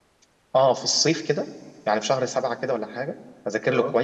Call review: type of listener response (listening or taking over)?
listening